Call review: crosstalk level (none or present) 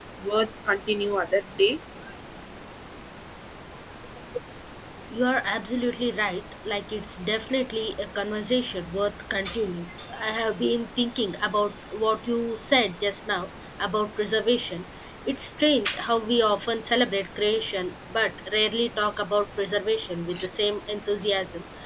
none